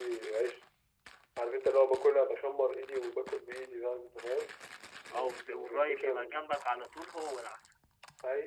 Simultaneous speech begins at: 5.1 s

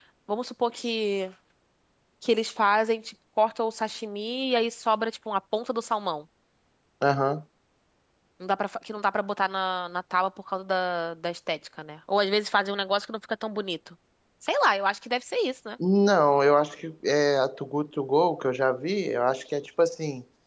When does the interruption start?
none

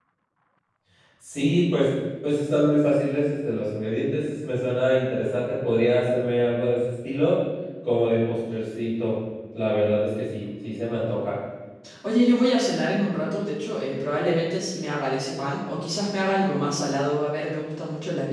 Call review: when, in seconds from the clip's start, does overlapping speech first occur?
none

